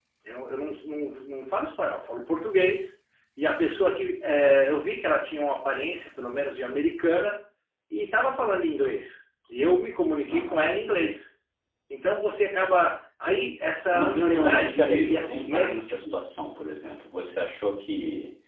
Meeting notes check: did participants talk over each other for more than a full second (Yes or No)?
Yes